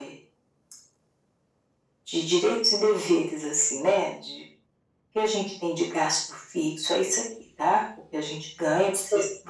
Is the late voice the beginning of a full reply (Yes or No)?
No